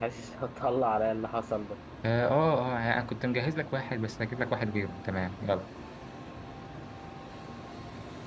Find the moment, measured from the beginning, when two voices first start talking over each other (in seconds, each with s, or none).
none